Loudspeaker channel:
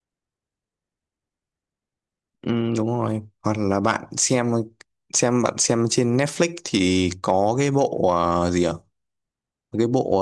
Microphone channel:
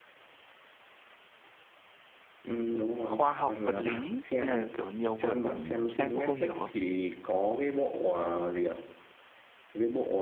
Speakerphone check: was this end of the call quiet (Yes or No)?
No